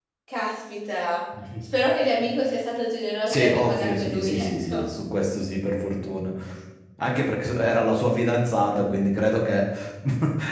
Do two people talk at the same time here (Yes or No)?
Yes